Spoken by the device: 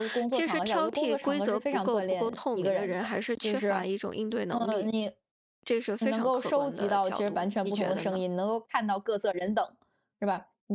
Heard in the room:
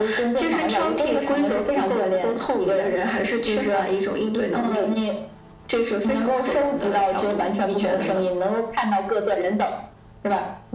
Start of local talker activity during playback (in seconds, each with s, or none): none